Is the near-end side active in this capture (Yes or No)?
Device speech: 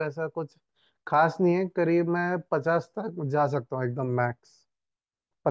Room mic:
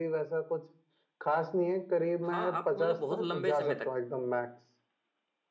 Yes